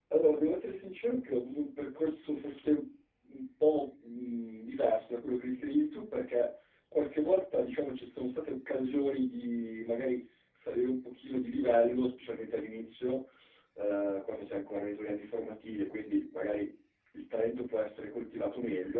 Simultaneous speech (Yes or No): No